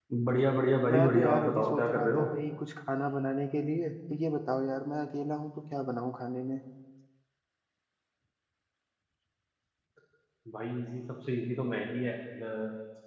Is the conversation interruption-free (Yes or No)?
No